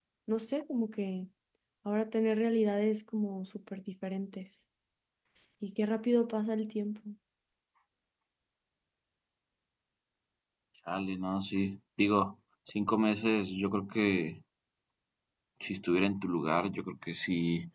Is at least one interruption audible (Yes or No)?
No